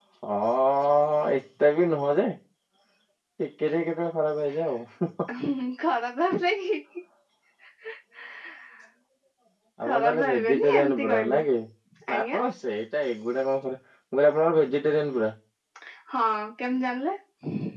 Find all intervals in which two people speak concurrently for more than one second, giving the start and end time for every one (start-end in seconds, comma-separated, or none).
9.8-11.4